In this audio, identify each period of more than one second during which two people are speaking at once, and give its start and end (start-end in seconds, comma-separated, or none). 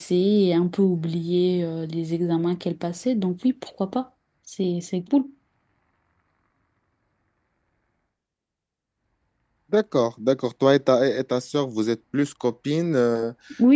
none